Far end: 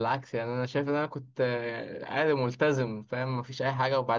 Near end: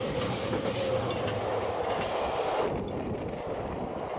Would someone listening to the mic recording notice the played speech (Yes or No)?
No